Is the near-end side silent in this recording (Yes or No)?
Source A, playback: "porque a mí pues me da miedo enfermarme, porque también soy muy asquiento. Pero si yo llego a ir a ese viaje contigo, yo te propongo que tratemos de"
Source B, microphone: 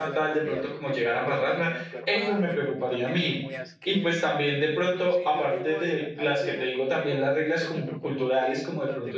No